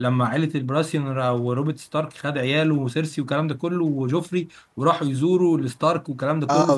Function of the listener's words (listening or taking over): listening